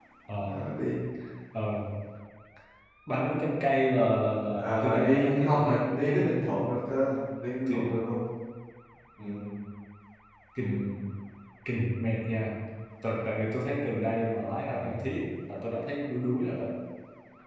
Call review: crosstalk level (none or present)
present